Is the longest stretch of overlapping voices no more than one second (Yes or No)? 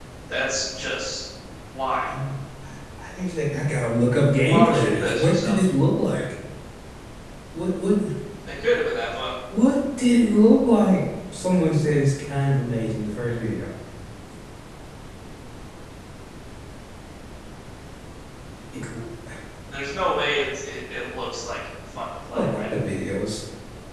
No